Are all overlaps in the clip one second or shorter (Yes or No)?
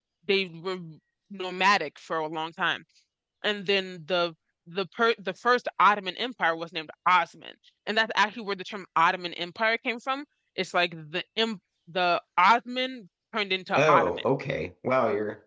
Yes